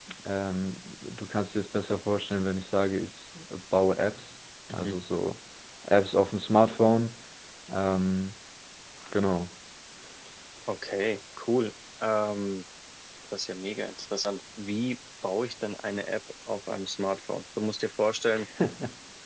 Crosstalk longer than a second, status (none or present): none